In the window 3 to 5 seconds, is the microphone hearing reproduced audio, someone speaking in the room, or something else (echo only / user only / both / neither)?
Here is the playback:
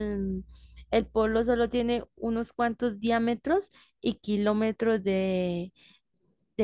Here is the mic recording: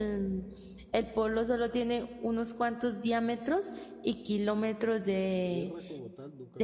echo only